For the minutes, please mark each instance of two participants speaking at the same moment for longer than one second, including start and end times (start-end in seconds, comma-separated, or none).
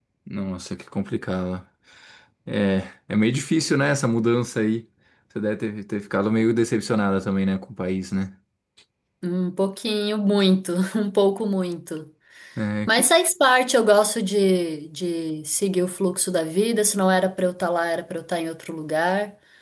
none